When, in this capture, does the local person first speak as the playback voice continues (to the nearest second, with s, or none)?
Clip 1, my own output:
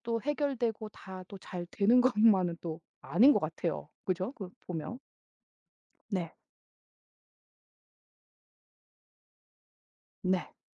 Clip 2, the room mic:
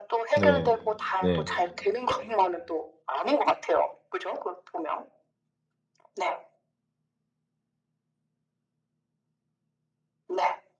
0 s